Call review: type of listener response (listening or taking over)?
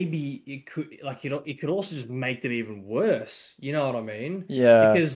listening